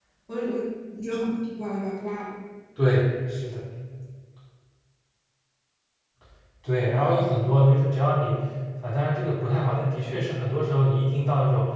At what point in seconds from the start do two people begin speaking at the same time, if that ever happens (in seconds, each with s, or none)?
none